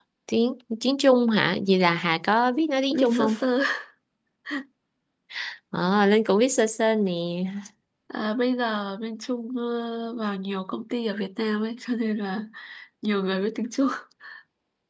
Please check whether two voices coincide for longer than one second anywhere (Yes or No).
No